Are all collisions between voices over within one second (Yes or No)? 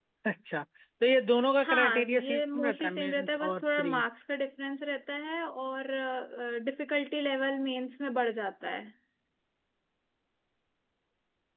No